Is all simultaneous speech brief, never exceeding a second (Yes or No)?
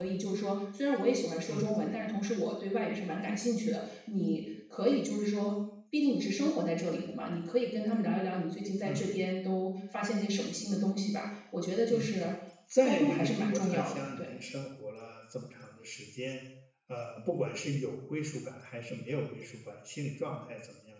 No